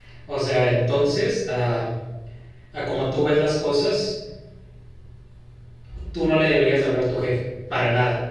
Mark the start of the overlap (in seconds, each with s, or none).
none